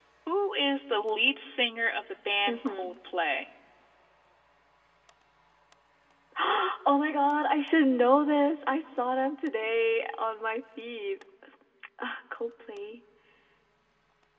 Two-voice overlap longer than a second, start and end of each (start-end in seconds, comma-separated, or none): none